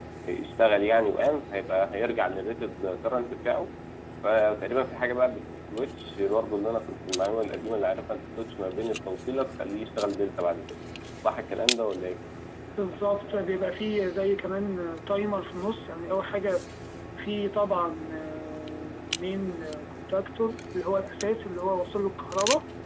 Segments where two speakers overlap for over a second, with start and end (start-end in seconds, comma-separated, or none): none